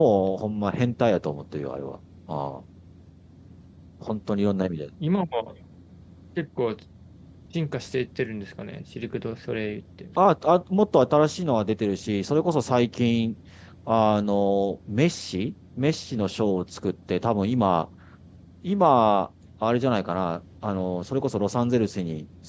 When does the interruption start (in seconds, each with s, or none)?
none